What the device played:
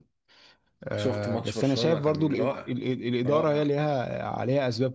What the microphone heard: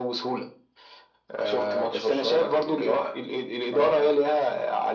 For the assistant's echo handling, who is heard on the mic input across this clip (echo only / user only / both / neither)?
echo only